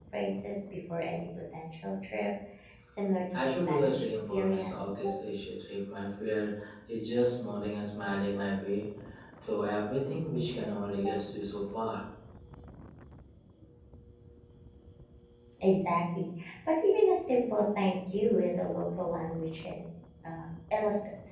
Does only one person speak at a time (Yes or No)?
No